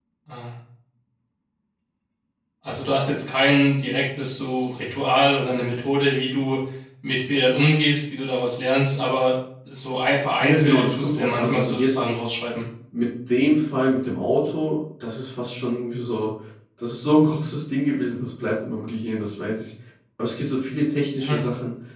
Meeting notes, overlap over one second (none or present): present